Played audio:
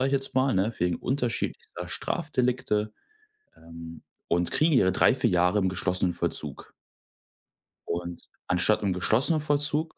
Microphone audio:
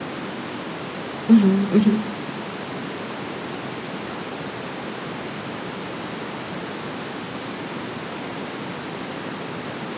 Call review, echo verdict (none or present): none